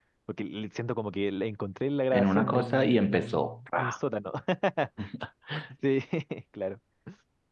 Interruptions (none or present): present